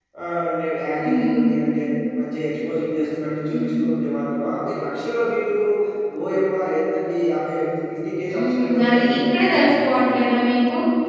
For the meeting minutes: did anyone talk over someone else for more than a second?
Yes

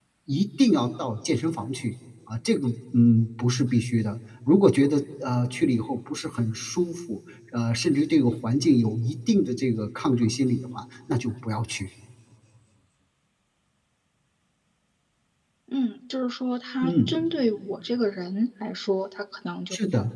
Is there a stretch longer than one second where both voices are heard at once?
No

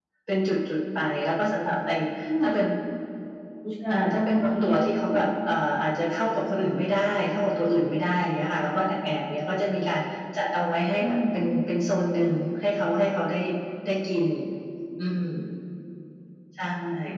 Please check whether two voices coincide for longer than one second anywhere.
Yes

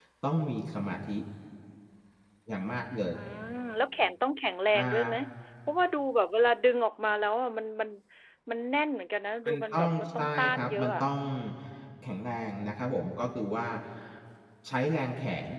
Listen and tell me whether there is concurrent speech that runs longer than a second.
Yes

